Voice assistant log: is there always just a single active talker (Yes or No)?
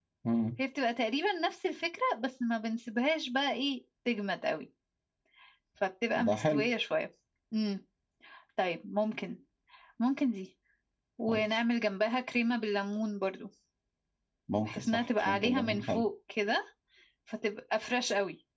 No